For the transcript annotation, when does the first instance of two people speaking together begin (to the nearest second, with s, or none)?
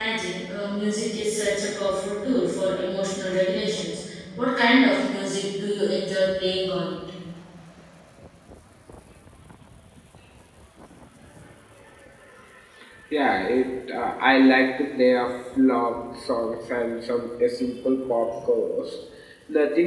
none